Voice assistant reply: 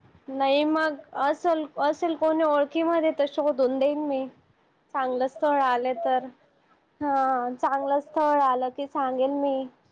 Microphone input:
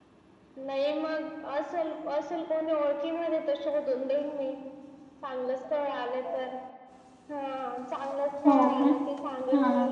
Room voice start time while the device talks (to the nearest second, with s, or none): 8 s